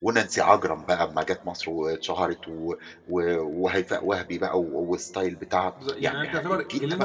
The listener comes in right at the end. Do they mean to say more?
Yes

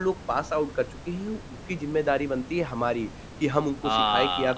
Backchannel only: Yes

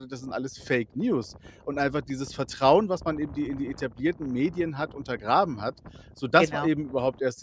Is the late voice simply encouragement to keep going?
Yes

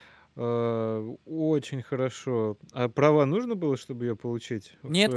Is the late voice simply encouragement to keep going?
No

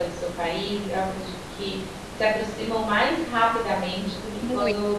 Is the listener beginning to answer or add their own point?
No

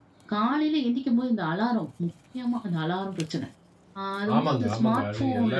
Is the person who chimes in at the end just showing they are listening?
No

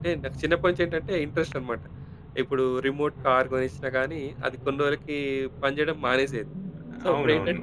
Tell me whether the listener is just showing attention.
Yes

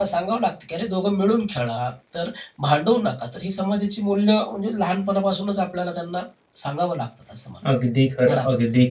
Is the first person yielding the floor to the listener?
Yes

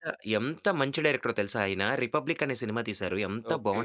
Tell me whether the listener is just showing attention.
Yes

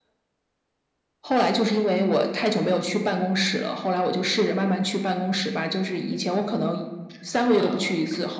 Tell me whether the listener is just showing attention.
Yes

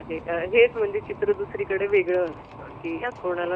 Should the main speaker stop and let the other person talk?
No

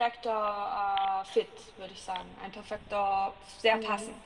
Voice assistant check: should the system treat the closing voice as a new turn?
Yes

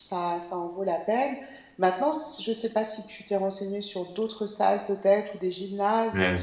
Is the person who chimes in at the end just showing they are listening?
Yes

